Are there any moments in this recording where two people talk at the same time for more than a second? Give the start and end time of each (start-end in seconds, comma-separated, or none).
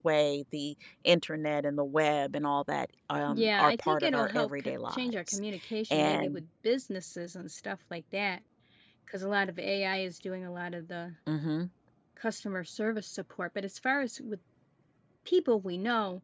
3.3-5.4